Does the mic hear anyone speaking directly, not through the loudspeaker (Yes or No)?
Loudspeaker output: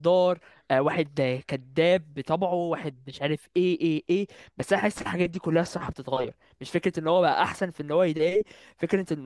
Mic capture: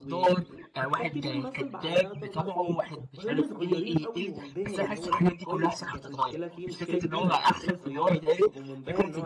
Yes